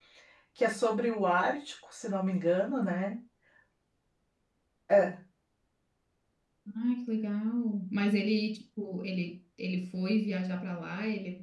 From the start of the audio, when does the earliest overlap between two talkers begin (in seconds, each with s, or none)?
none